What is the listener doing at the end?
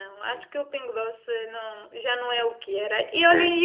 listening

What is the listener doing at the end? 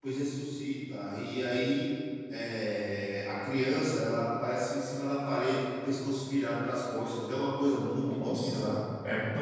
taking over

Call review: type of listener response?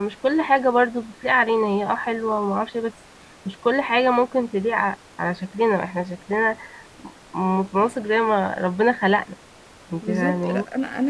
taking over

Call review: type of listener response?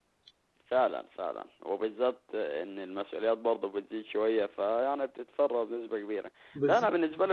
listening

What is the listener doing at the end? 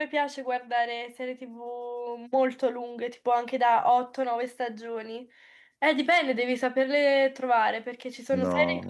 listening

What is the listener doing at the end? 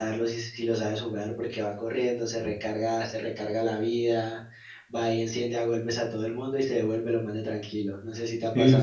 taking over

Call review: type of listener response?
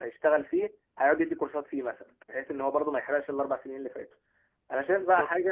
listening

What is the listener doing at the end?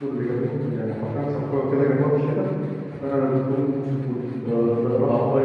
taking over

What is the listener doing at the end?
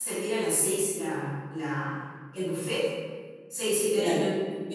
listening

